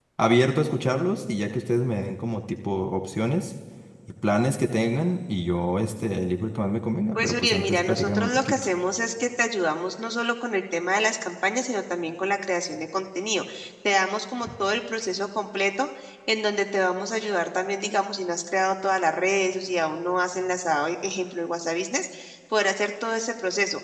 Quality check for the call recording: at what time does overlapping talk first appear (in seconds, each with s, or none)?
7.2 s